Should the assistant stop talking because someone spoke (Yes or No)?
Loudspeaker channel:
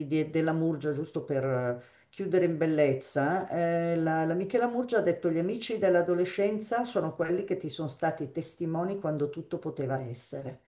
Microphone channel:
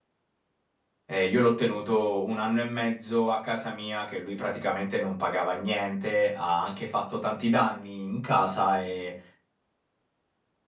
Yes